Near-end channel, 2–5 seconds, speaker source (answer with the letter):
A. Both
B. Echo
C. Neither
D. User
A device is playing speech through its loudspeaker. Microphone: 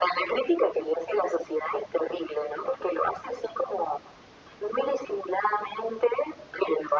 B